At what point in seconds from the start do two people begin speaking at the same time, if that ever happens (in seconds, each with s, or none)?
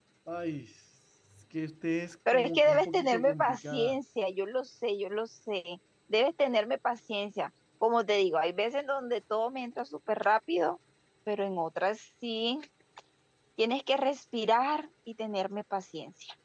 2.3 s